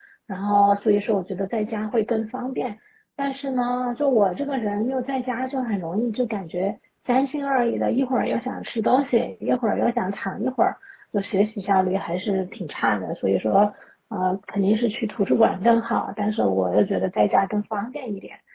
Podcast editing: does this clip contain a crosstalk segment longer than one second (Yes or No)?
No